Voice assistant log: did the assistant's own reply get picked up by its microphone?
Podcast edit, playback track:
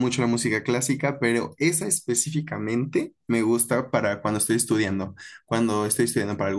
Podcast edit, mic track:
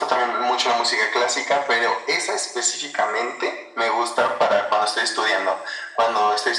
Yes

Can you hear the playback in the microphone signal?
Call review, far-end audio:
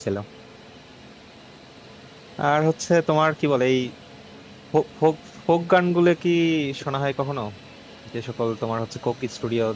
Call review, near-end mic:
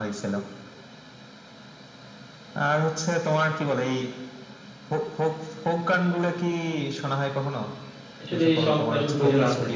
Yes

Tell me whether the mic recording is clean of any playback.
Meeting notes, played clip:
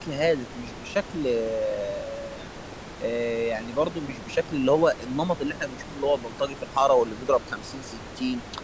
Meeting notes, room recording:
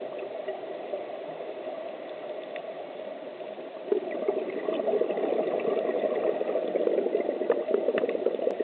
Yes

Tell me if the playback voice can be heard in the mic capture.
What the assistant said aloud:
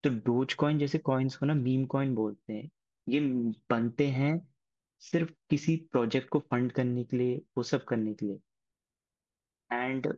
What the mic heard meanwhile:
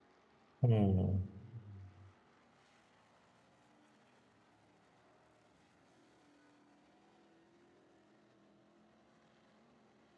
No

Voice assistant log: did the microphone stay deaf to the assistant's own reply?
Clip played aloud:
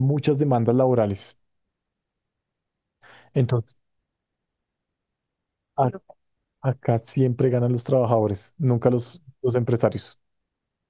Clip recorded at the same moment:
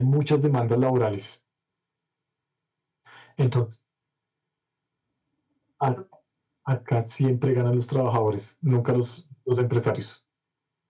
No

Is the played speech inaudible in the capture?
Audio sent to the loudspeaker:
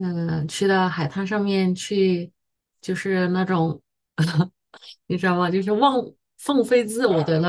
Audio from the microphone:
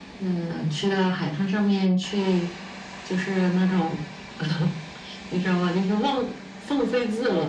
No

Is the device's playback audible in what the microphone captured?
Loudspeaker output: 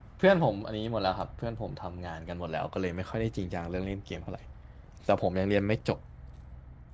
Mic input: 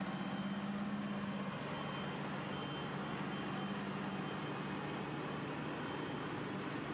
No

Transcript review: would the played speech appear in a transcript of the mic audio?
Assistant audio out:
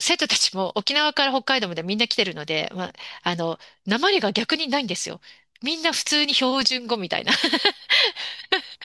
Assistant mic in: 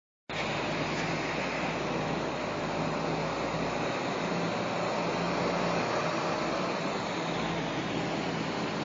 No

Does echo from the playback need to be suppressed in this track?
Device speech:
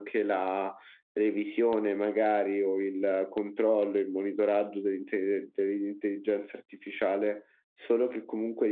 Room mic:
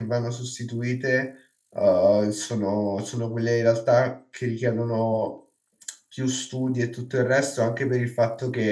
No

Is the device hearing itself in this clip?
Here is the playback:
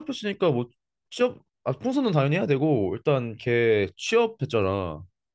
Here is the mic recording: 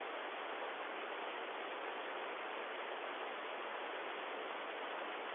No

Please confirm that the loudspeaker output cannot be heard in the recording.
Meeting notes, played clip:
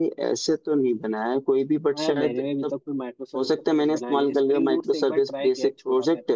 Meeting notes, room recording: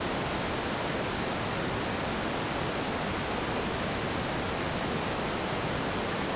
Yes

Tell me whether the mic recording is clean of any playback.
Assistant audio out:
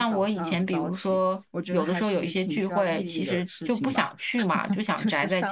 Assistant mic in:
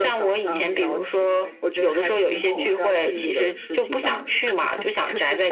No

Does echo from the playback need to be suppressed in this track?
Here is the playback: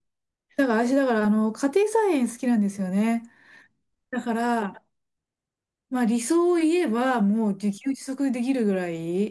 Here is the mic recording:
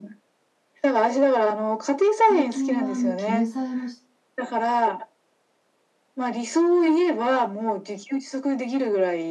Yes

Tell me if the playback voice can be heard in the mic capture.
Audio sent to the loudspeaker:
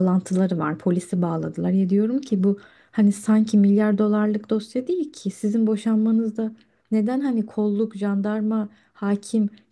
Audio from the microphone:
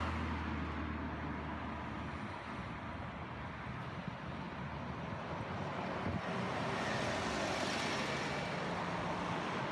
No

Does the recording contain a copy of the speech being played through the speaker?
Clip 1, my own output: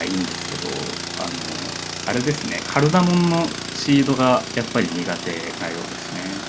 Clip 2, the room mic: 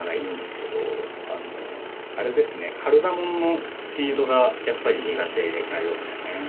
Yes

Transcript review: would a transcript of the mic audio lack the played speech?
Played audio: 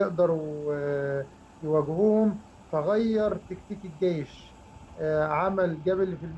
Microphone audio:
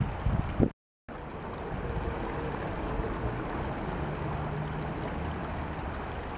Yes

